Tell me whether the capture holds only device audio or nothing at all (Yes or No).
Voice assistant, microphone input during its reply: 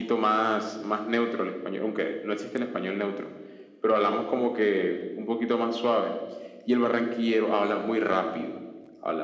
Yes